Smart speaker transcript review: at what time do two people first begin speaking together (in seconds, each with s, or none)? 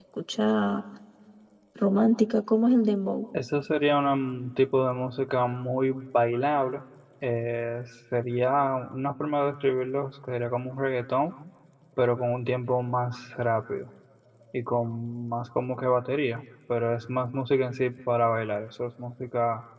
none